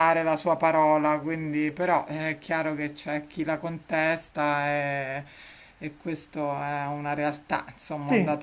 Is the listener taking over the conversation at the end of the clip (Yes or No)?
Yes